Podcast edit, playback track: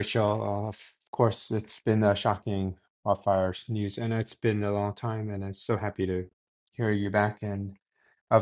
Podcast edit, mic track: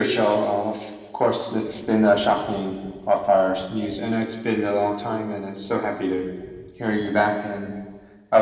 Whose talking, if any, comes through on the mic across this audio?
echo only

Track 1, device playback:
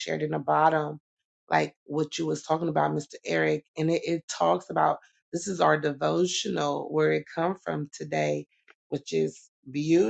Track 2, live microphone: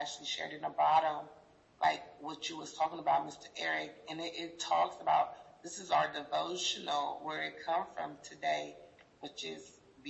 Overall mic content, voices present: echo only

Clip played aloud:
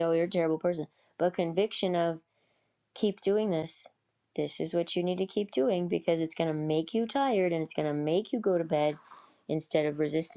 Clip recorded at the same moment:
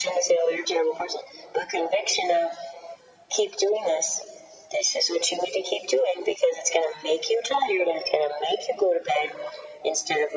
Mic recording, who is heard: echo only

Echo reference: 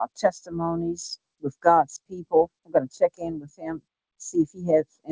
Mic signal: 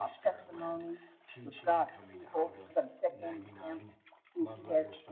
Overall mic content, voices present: both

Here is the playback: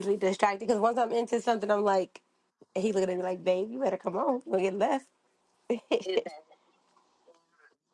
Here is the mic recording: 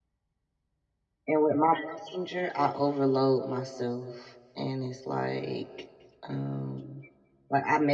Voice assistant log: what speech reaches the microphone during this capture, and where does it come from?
user only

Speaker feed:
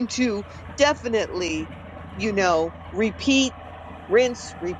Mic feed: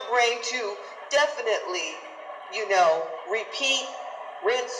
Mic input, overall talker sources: echo only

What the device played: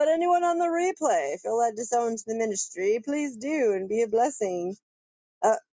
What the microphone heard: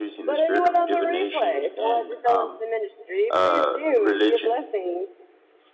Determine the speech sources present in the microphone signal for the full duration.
both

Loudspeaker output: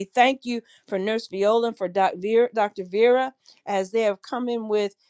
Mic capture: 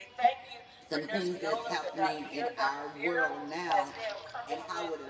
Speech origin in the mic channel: both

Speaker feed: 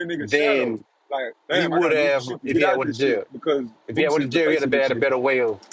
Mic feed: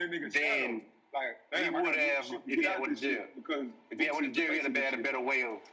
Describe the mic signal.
echo only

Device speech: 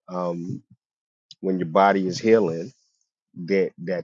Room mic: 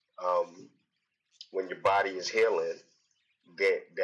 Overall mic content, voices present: echo only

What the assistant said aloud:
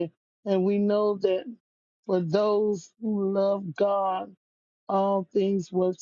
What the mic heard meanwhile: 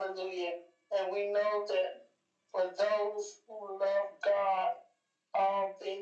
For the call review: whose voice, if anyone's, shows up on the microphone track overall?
echo only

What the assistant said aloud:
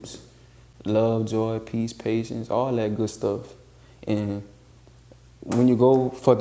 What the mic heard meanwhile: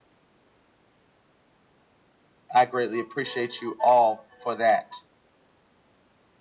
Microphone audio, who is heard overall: user only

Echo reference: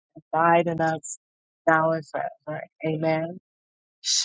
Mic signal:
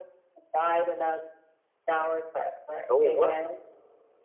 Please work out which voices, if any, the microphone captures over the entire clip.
both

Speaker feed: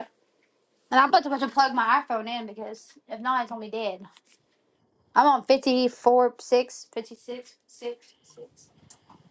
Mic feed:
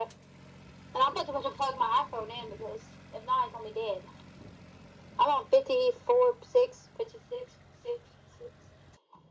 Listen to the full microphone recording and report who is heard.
echo only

